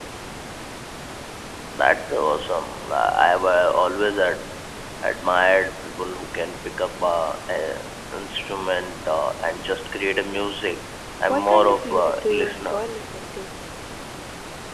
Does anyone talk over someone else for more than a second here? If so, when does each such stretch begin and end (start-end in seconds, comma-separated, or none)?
11.3-12.8